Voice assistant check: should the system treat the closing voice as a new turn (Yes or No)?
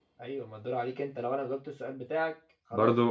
Yes